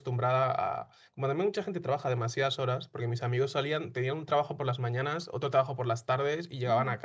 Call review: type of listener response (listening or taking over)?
listening